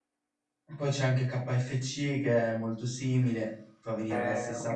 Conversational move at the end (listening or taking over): taking over